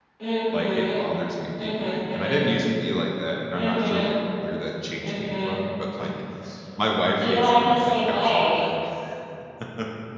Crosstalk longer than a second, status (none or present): present